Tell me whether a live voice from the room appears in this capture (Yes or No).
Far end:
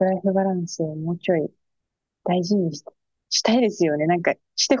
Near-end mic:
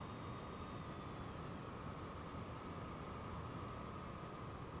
No